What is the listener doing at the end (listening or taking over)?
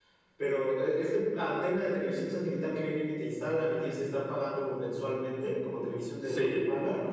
listening